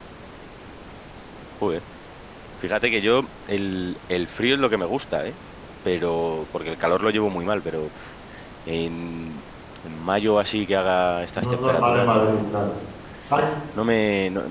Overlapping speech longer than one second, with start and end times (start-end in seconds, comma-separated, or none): 11.4-12.7